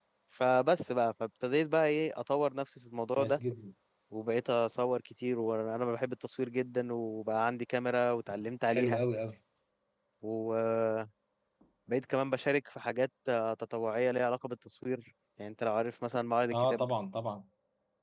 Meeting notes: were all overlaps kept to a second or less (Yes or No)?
Yes